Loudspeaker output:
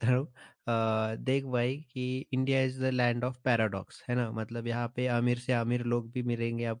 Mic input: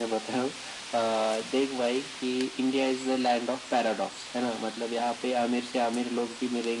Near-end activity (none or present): none